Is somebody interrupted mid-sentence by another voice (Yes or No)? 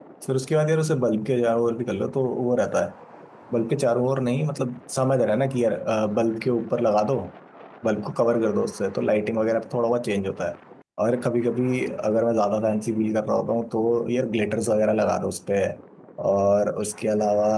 No